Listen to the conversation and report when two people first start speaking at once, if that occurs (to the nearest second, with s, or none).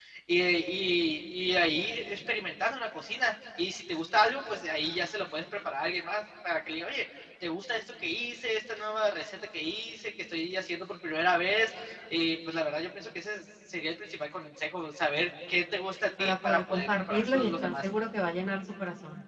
16 s